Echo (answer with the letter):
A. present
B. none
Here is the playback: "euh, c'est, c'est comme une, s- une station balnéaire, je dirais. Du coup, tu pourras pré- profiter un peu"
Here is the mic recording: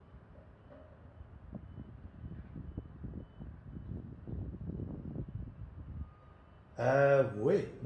B